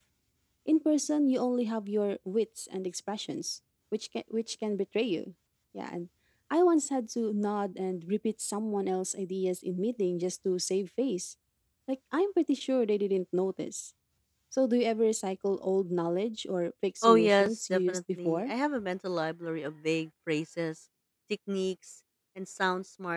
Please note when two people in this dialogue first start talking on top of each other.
17.0 s

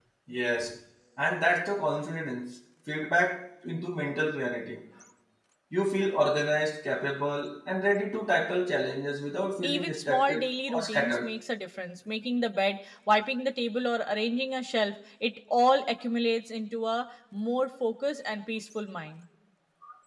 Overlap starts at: 9.6 s

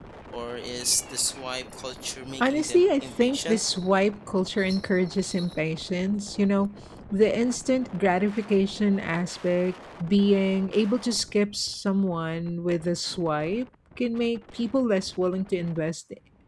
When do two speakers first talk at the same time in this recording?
2.4 s

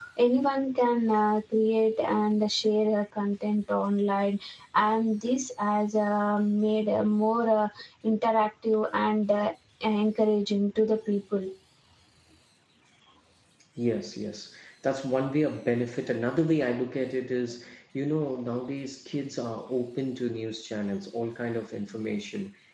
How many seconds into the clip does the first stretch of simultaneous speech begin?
none

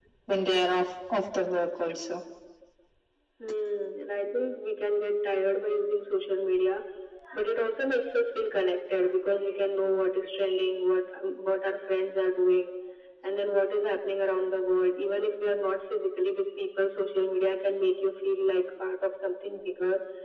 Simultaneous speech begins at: none

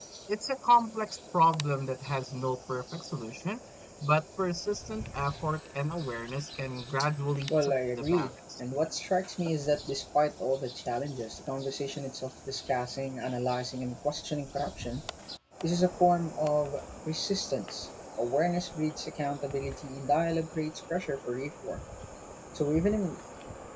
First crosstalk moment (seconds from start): 7.5 s

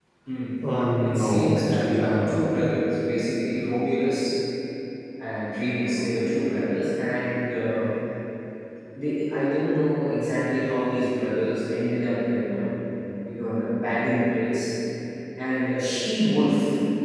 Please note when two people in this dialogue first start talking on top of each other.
1.0 s

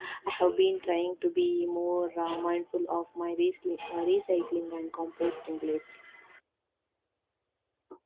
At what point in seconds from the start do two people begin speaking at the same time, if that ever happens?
none

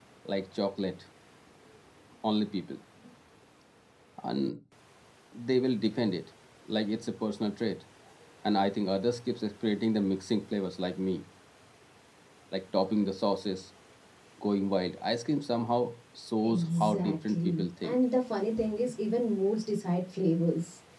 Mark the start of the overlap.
16.4 s

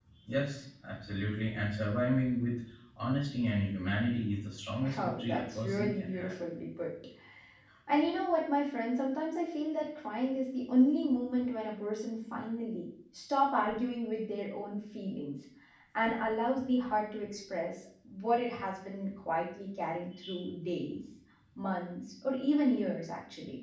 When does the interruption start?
4.8 s

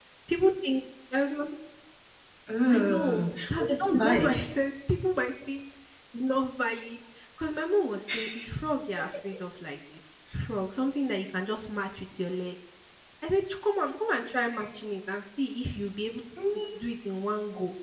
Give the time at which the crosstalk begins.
2.7 s

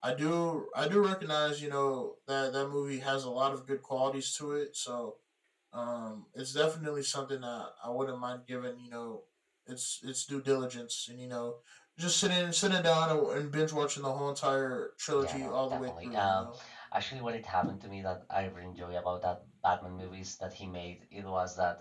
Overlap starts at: 15.2 s

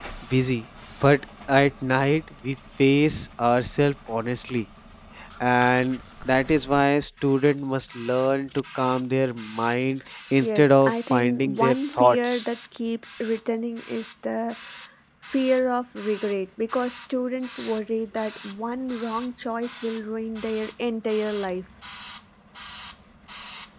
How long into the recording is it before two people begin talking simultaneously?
10.4 s

